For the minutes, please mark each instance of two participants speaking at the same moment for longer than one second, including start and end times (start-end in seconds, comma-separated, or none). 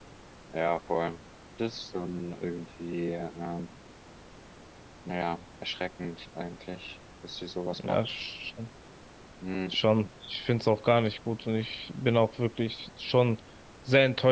none